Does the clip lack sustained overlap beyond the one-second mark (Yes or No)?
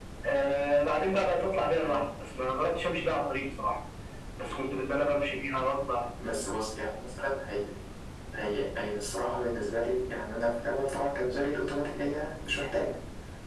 Yes